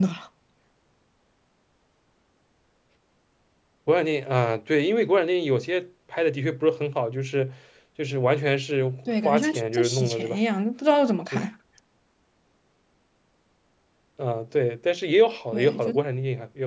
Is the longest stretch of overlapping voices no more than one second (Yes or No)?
No